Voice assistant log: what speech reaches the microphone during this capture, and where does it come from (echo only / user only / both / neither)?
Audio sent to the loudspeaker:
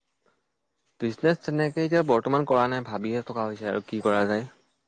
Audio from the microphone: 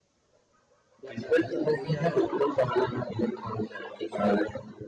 both